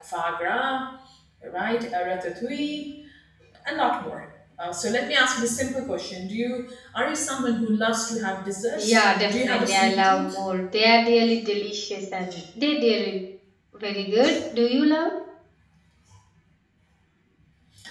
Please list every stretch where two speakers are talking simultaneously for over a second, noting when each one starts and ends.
8.9-10.4

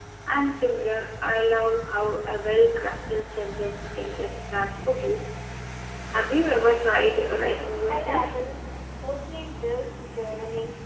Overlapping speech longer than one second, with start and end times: none

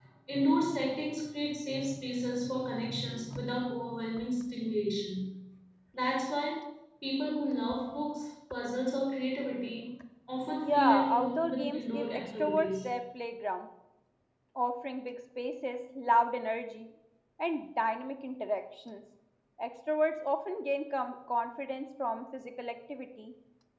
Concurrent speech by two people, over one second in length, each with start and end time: 10.5-12.8

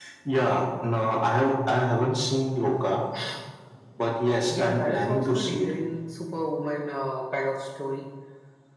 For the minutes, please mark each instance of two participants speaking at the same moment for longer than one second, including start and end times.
4.5-5.7

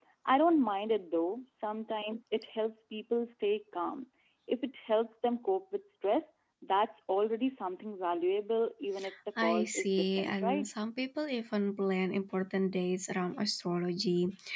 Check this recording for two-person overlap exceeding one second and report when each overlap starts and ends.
9.4-10.7

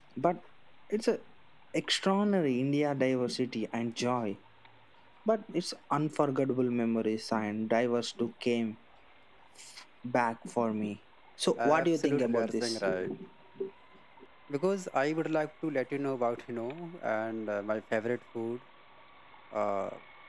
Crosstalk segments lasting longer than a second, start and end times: 11.6-12.8

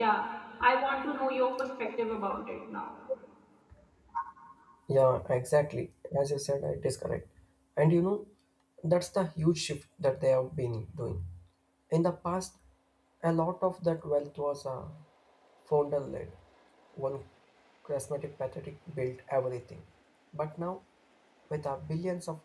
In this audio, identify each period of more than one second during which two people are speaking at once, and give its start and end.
none

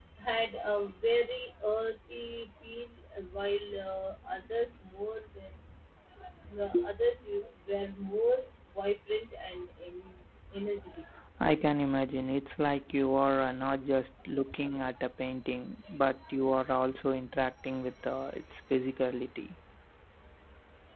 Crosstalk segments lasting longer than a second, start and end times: none

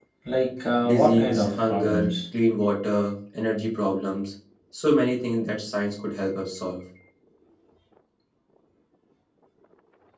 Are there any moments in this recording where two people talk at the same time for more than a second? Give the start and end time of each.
0.8-2.1

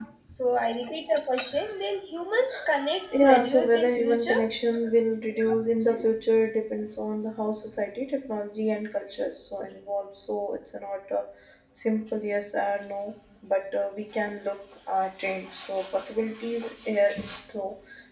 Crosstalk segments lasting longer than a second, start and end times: 3.1-4.4

